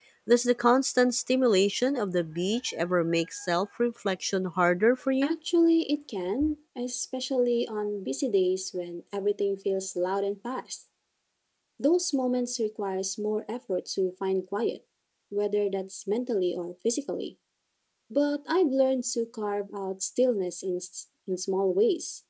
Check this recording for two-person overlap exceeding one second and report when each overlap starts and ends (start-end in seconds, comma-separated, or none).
none